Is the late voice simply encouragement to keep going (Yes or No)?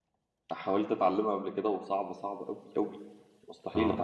No